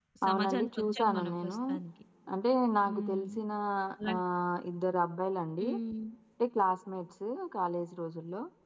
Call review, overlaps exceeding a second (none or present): present